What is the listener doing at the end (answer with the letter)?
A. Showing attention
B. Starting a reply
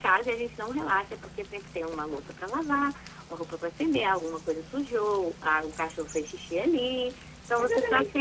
B